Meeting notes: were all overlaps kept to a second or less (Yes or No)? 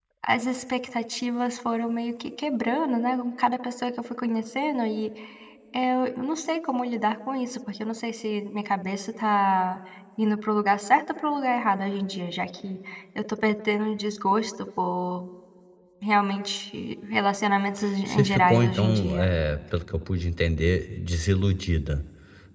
No